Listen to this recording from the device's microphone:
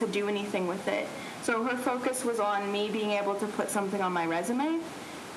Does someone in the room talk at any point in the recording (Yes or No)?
No